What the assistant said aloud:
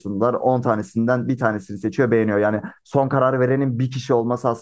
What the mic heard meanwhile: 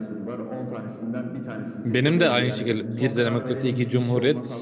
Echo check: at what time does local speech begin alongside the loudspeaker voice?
1.8 s

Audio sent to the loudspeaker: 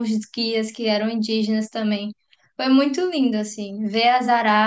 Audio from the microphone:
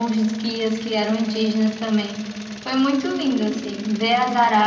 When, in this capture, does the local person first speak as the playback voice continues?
none

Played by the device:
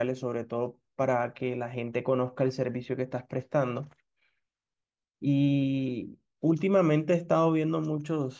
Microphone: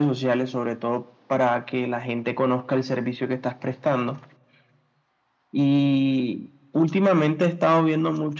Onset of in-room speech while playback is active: none

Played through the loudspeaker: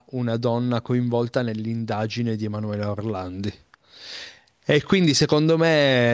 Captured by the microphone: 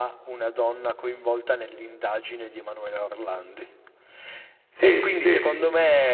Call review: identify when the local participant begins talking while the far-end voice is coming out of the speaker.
4.7 s

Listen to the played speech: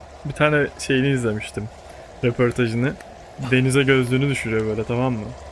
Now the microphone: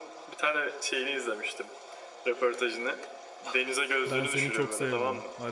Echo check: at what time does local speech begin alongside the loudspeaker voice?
4.0 s

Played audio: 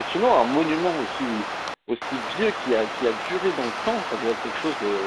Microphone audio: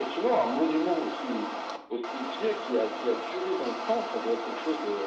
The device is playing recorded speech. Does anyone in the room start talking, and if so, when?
none

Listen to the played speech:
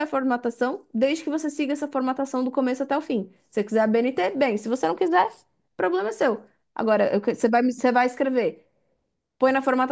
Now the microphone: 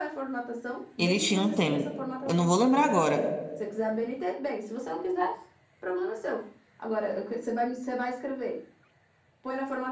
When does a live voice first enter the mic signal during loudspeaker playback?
1.0 s

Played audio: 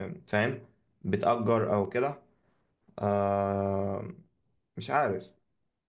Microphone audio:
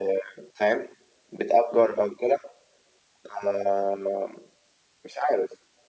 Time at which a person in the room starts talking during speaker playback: none

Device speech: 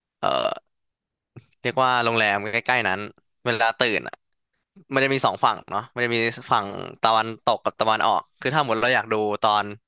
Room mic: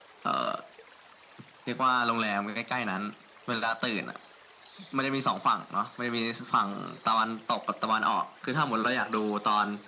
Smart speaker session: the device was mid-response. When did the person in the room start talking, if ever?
none

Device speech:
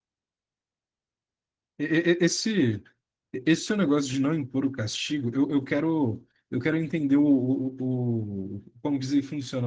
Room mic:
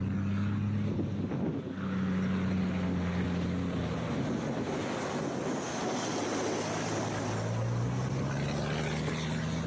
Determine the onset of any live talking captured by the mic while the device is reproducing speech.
none

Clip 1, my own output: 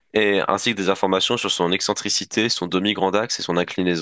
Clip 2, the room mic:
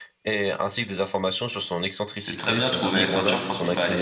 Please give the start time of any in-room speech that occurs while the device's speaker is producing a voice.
2.2 s

